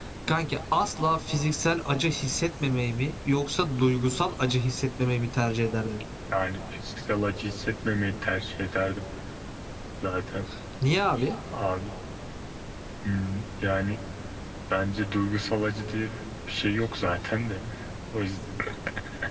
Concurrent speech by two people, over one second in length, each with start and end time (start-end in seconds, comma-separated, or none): none